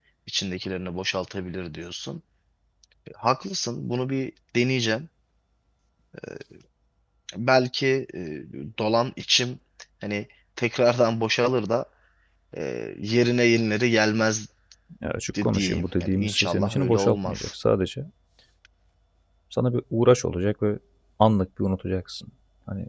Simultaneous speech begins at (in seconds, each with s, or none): 15.4 s